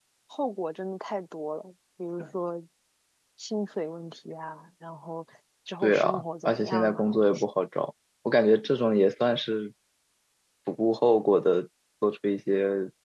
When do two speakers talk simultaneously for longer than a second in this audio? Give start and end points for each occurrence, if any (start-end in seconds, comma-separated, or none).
5.8-7.5